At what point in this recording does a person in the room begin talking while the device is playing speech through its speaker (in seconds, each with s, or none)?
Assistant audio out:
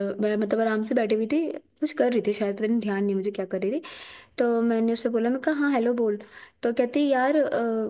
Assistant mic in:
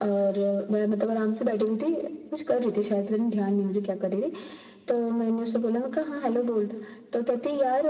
none